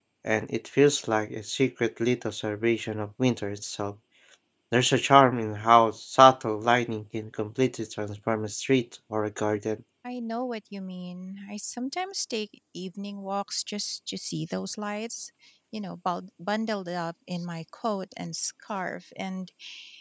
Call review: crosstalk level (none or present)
none